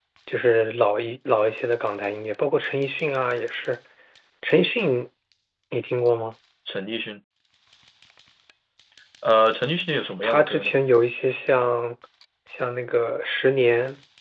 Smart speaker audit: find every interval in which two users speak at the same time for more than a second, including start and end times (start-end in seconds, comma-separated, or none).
none